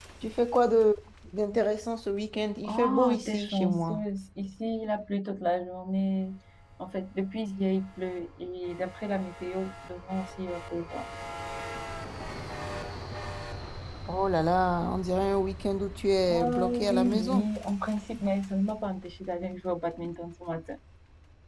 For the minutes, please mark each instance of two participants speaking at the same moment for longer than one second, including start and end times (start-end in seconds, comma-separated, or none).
2.6-4.0, 16.3-17.5